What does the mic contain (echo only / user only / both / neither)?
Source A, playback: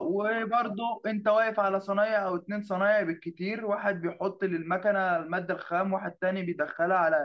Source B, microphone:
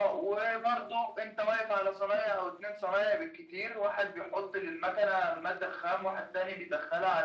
echo only